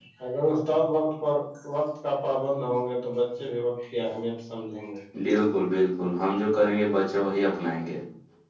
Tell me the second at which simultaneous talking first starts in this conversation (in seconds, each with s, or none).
none